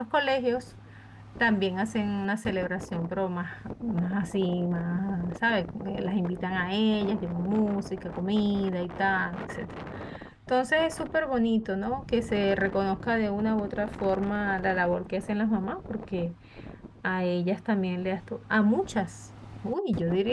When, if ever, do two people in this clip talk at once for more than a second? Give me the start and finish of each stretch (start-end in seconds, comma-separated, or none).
none